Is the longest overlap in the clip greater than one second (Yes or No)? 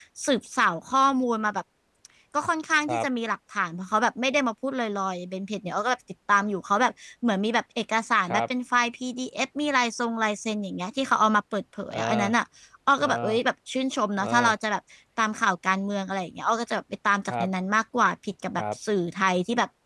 No